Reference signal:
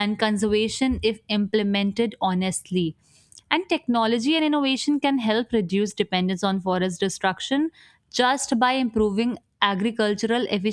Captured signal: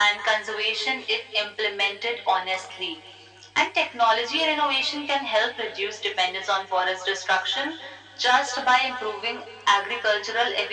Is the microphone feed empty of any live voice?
Yes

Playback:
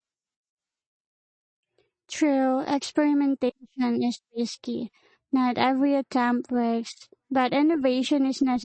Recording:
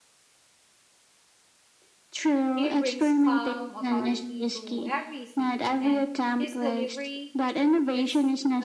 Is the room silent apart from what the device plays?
No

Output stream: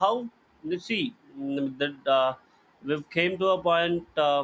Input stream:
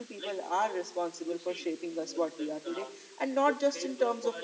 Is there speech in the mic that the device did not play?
Yes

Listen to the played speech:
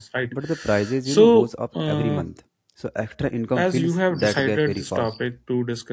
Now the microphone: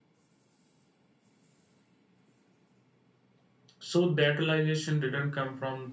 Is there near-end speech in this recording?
Yes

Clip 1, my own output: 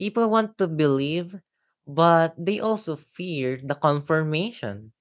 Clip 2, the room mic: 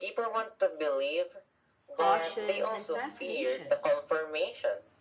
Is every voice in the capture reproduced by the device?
No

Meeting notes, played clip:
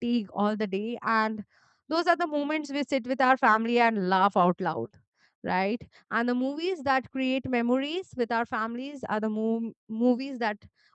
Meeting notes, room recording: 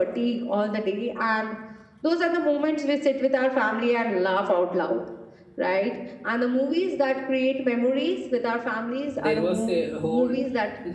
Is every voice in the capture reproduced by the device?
No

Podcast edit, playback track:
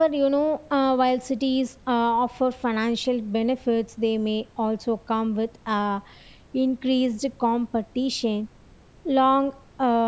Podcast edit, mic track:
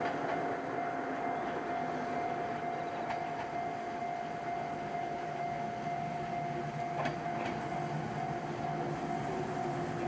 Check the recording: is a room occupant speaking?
No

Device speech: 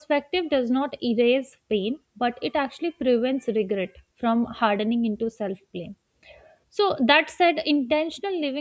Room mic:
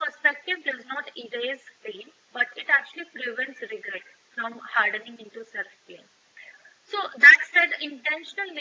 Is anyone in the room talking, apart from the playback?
No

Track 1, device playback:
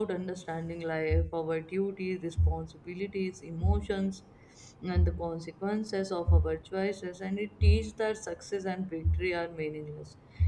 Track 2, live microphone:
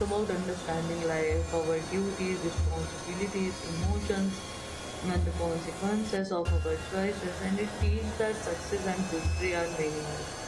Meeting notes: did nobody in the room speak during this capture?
Yes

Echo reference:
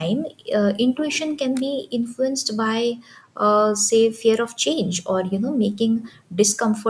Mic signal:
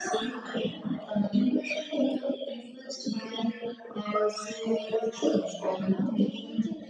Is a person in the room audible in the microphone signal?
Yes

